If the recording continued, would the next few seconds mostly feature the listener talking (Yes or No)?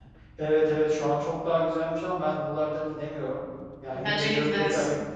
No